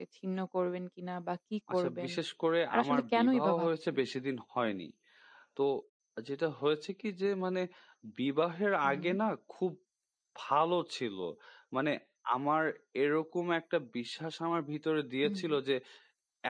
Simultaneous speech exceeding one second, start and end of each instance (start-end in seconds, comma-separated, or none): 2.7-4.0